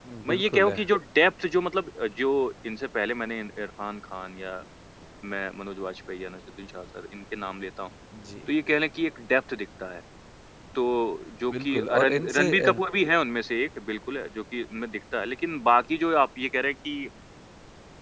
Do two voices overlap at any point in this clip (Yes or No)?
Yes